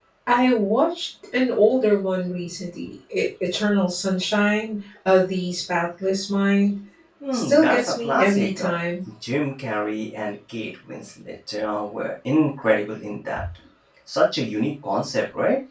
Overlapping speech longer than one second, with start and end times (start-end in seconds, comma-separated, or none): 7.3-8.7